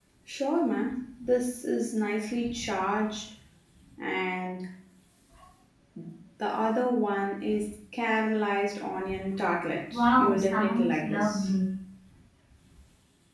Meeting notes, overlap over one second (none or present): present